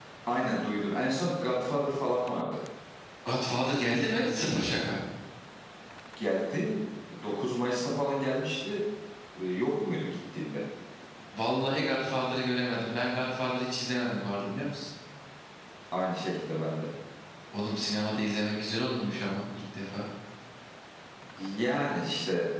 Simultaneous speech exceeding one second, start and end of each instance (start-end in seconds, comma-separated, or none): none